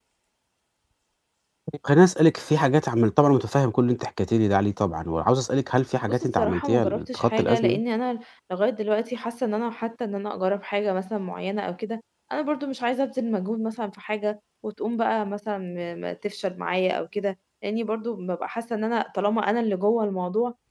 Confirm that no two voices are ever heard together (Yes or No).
No